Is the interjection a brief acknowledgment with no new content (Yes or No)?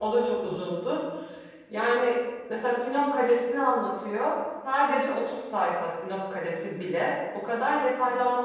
Yes